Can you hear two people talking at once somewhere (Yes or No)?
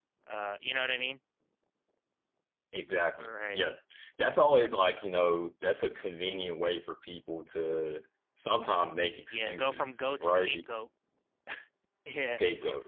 Yes